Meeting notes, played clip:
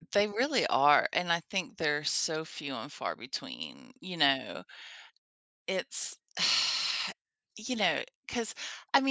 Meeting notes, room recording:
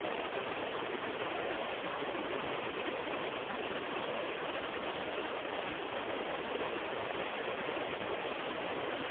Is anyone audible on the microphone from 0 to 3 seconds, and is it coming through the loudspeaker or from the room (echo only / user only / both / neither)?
neither